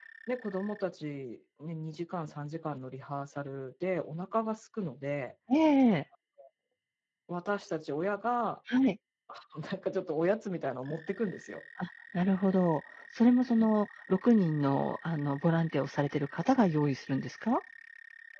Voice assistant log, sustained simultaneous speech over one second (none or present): none